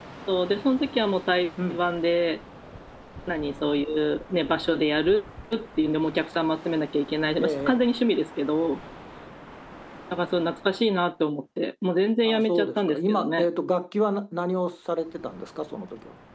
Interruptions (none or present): present